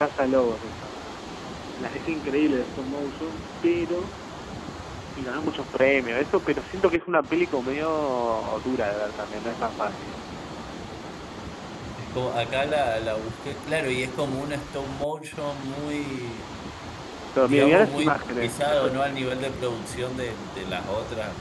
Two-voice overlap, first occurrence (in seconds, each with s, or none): 17.4 s